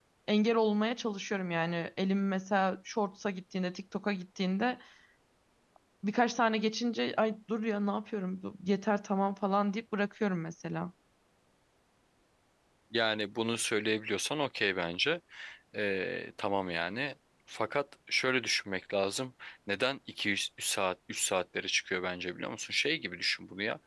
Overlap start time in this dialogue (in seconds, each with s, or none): none